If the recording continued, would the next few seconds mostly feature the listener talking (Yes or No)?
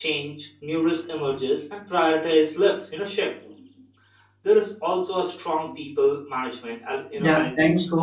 Yes